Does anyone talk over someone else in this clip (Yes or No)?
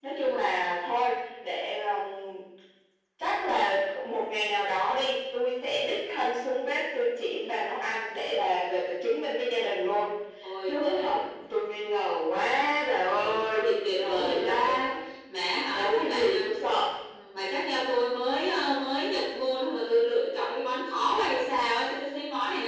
Yes